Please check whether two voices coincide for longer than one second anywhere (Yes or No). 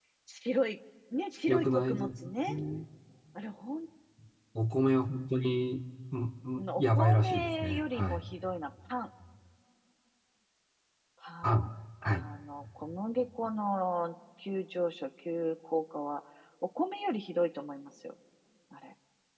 Yes